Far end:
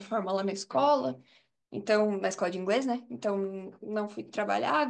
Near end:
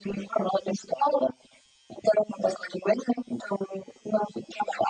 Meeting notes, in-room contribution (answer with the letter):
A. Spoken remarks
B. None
B